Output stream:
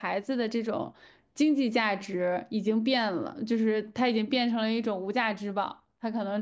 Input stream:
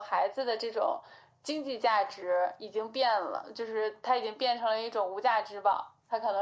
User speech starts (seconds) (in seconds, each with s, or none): none